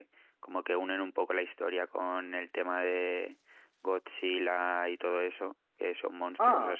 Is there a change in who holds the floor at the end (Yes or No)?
No